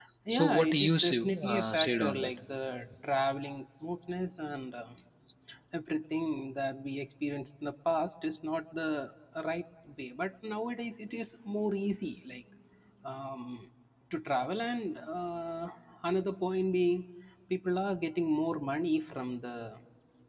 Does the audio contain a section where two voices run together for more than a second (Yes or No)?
Yes